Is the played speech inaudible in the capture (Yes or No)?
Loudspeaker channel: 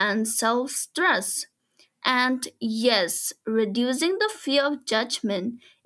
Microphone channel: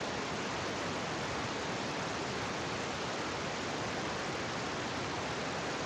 Yes